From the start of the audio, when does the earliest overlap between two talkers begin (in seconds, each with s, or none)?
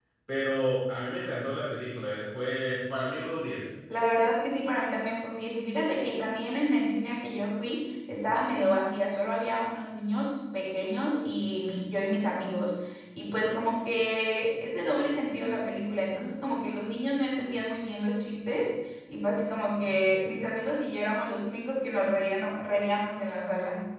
none